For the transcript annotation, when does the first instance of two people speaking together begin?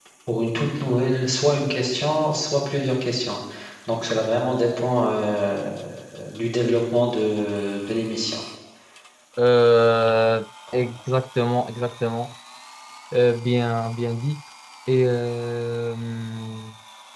none

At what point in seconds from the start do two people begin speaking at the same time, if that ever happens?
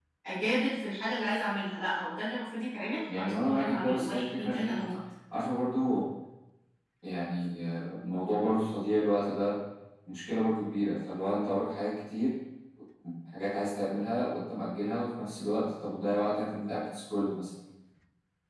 3 s

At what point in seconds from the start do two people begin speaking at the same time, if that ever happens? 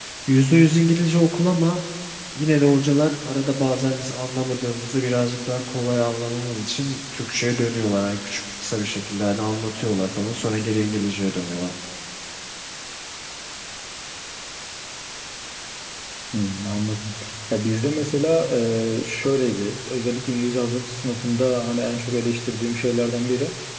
none

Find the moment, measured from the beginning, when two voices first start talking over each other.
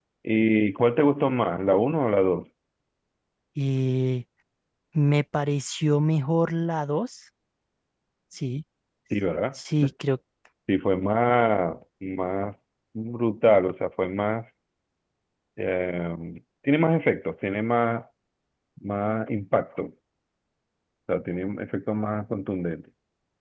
none

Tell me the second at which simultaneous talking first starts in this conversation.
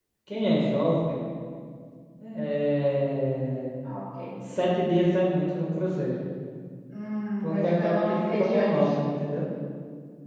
7 s

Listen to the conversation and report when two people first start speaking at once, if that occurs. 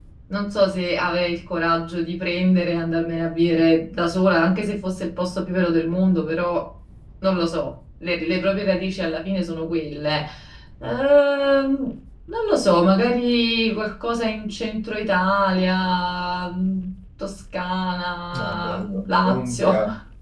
18 s

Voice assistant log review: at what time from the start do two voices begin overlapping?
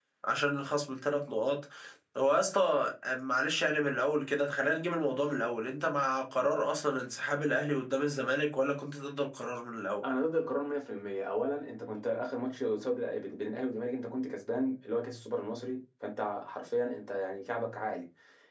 none

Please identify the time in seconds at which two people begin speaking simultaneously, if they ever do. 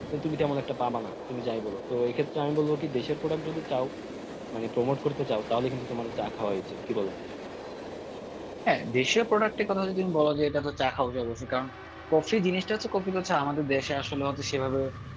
none

